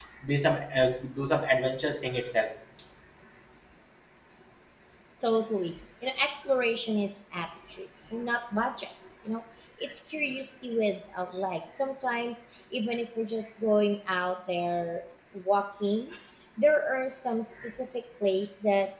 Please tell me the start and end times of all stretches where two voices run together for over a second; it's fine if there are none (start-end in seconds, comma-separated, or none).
none